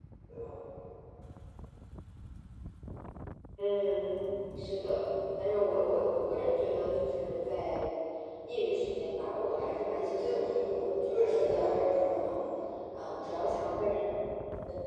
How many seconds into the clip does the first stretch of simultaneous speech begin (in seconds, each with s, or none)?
9.9 s